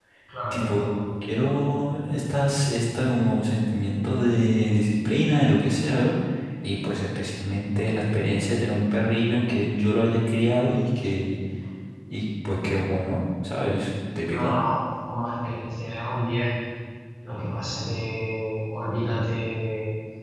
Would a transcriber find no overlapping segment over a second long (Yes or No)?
Yes